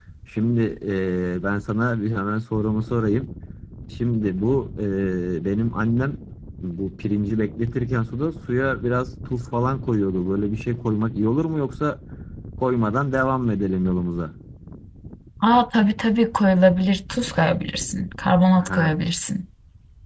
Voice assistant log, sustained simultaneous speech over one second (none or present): none